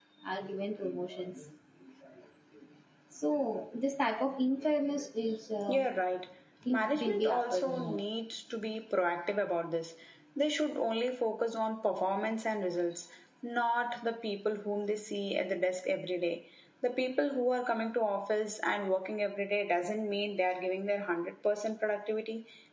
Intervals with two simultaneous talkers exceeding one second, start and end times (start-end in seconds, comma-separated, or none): 6.7-8.0